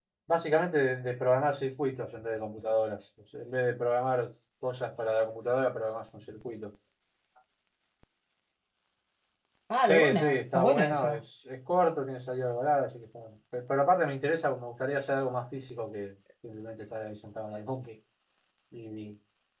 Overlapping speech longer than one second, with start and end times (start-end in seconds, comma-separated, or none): 9.8-11.2